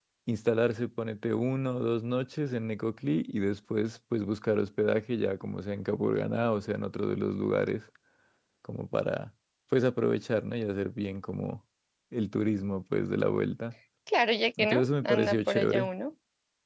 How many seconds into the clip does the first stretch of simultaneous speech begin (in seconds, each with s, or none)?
14.6 s